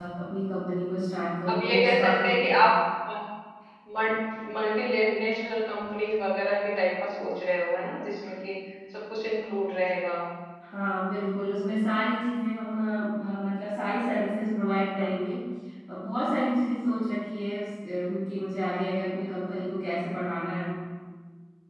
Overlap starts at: 1 s

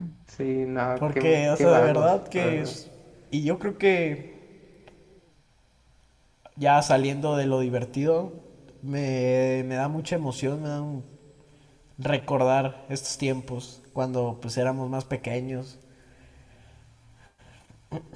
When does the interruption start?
1 s

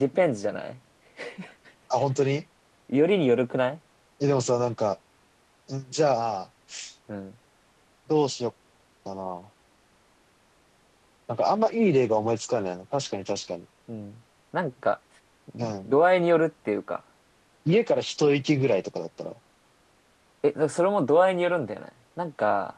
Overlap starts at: none

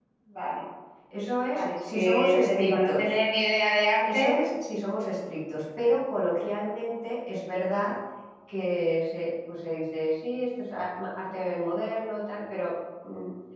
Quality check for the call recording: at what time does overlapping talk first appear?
2 s

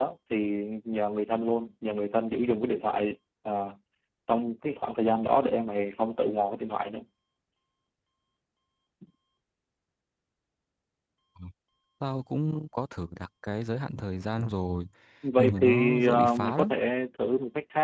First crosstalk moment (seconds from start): 15 s

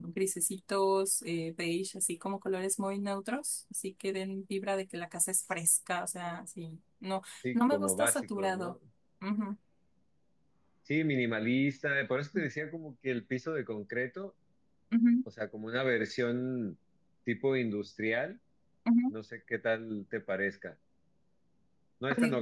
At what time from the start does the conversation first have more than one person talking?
8 s

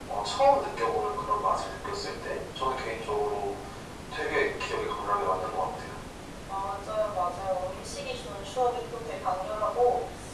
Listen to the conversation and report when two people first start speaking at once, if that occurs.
none

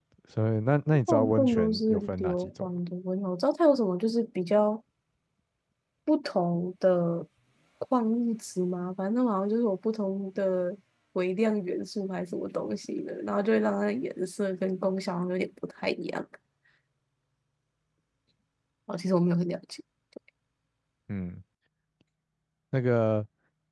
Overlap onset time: 1 s

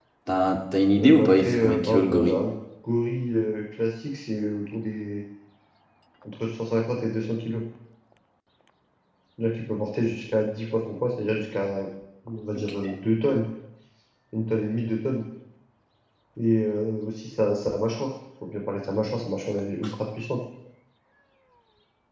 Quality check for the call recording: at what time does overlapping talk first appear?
1 s

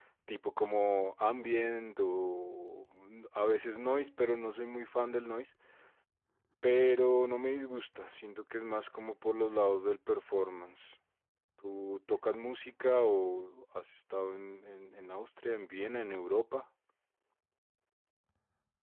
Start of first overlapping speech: none

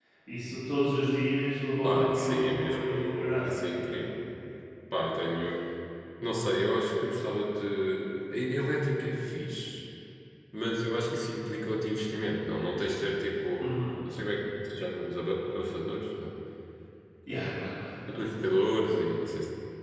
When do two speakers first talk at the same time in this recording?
2 s

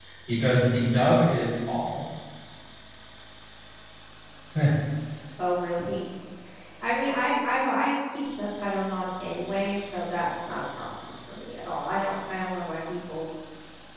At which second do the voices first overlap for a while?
none

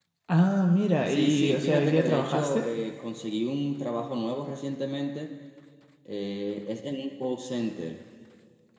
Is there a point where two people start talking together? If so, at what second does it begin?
1 s

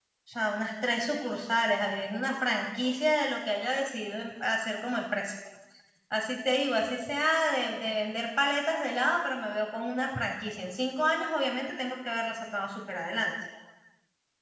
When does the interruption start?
none

